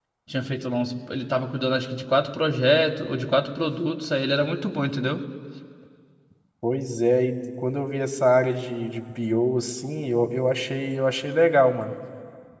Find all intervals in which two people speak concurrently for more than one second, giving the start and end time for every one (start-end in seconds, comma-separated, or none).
none